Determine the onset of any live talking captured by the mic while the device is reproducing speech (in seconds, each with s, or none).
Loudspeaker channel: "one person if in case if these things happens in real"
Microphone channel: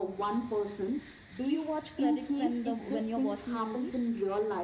1.4 s